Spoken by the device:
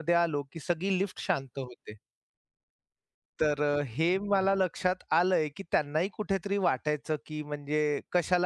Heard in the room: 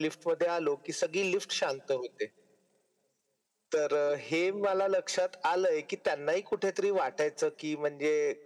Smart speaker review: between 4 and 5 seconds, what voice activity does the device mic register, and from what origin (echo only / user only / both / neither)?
echo only